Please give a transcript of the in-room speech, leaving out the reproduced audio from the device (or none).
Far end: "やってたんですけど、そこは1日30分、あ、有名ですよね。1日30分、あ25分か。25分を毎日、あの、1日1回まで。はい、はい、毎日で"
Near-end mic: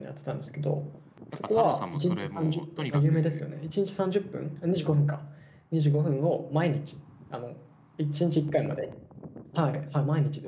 やっぱ太郎さんもそれもう、とにかく、